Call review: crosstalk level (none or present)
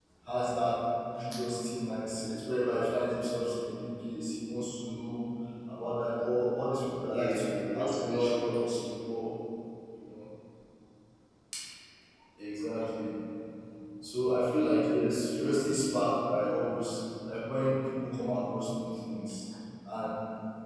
present